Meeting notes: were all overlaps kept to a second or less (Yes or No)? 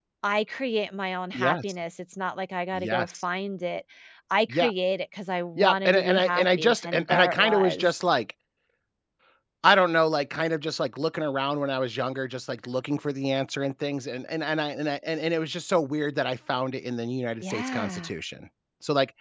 No